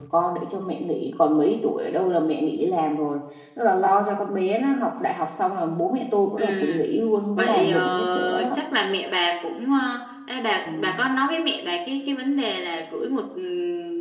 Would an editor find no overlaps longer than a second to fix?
No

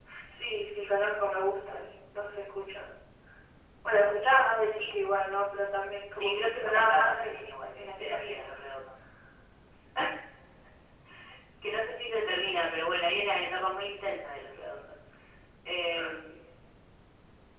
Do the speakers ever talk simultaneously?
Yes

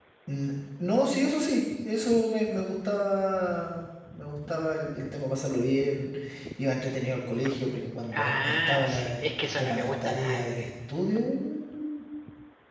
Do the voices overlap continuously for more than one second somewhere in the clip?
Yes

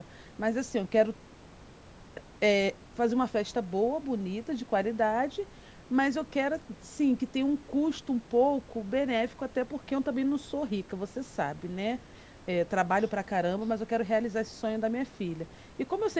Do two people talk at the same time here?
No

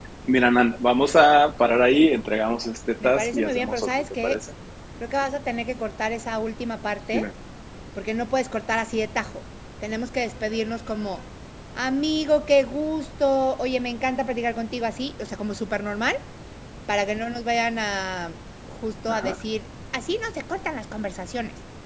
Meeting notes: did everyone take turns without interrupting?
No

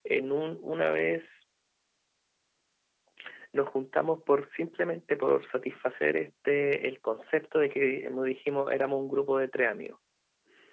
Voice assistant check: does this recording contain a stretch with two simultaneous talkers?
No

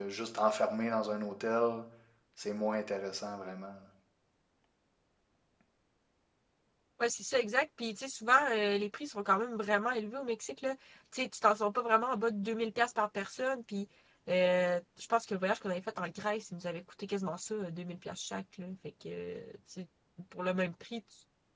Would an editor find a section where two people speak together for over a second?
No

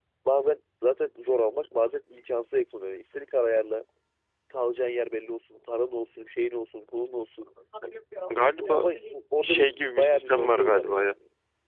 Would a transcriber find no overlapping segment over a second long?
No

